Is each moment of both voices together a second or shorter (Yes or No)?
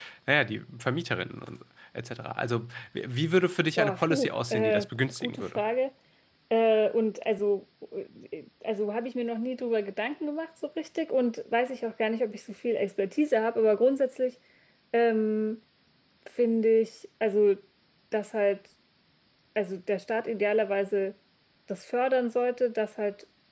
No